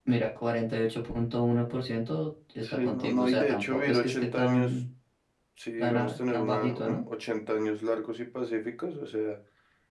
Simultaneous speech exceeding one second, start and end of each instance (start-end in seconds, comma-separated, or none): 2.6-4.7, 5.8-7.0